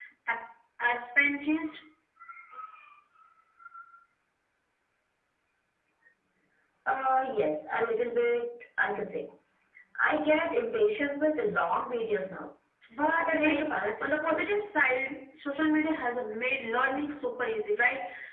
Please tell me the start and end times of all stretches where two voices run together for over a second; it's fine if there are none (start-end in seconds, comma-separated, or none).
13.2-14.5